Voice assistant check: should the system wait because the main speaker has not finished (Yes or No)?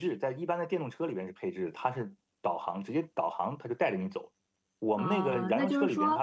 No